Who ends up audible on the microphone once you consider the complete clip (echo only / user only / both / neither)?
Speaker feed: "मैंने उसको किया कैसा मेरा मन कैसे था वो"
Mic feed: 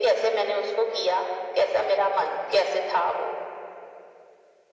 echo only